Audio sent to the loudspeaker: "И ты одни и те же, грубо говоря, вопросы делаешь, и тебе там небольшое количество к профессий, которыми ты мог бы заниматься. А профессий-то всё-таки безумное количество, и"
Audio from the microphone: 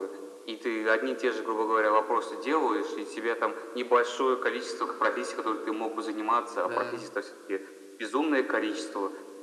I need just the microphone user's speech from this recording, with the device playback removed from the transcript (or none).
Да.